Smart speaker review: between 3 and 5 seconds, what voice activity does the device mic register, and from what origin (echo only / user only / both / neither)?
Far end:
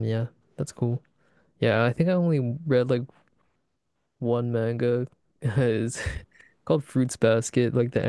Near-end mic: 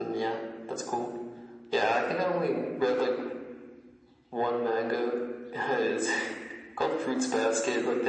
echo only